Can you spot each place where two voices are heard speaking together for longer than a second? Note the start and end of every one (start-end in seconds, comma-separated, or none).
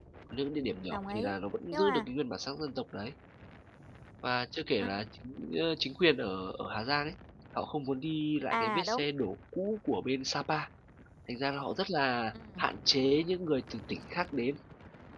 none